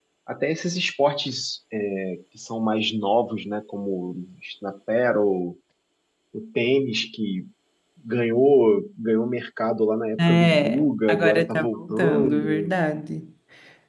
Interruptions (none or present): present